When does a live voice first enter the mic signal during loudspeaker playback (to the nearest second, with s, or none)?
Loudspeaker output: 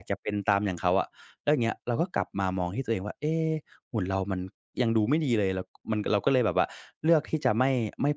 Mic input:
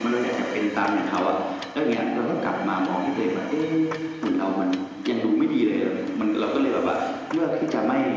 none